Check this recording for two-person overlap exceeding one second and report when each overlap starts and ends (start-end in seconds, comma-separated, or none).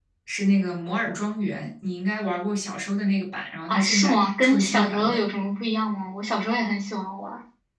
3.7-5.2